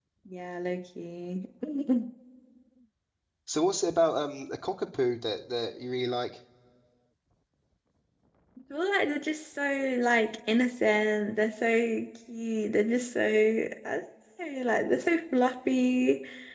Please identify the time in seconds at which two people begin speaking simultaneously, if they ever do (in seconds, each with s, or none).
none